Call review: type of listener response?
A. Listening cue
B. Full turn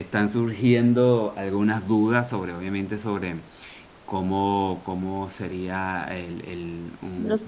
A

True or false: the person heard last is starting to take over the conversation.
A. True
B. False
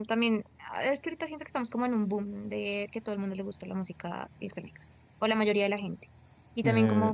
B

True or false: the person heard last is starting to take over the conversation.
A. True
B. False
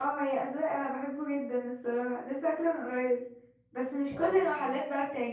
B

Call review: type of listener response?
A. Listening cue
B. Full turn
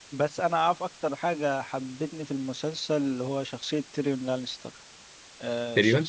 A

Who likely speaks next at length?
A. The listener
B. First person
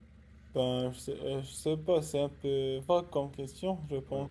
A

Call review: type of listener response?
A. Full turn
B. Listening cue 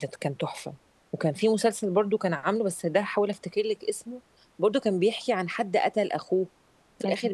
B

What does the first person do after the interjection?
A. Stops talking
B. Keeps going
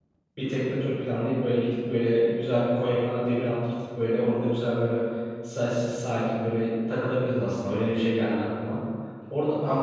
B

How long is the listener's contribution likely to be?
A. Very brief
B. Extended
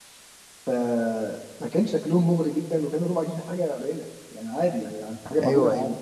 A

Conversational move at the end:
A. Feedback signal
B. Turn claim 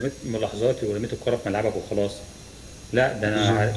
A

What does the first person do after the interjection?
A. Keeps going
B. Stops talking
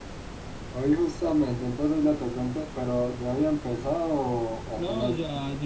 B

